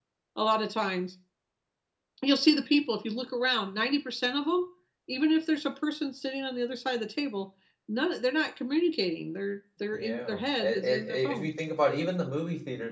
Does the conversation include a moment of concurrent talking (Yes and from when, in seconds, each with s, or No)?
Yes, from 9.9 s